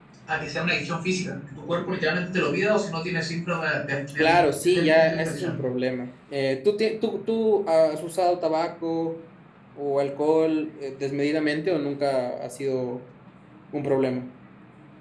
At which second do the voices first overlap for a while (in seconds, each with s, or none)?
4.2 s